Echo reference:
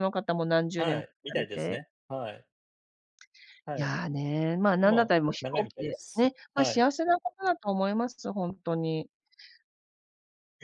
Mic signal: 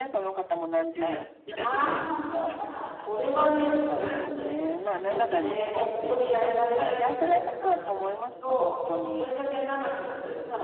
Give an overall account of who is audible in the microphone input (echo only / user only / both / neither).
both